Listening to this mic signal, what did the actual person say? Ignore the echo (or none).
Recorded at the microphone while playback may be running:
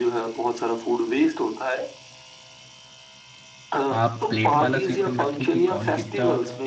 आप प्लेट वाला सिस्टम रखिए कि कौन कितना